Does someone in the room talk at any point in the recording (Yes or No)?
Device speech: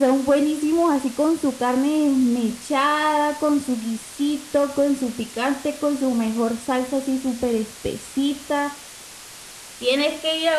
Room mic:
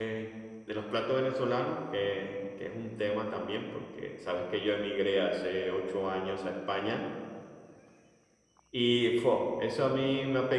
Yes